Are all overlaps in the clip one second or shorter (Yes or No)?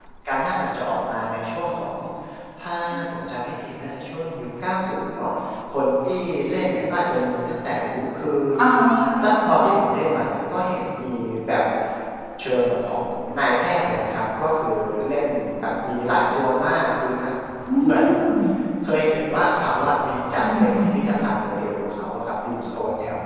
Yes